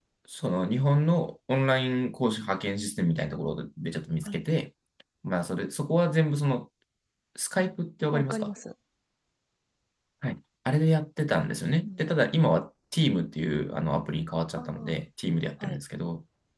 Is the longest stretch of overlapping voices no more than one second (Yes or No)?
Yes